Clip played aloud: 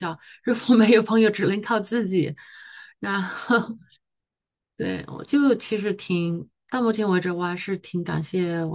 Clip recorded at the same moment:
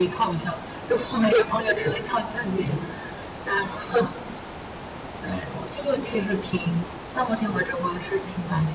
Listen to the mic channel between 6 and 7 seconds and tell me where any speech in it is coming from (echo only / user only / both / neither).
echo only